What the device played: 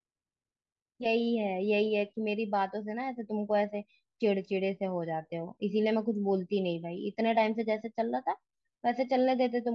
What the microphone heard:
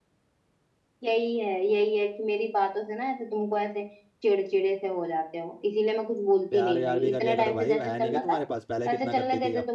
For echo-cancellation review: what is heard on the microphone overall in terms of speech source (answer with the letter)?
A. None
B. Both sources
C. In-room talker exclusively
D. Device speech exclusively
B